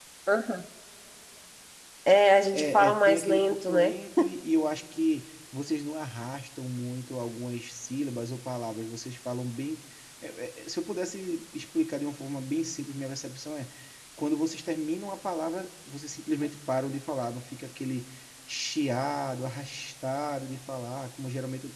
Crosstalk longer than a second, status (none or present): present